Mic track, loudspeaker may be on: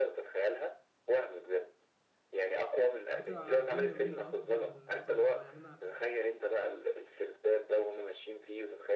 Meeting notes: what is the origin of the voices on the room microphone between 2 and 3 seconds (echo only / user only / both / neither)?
echo only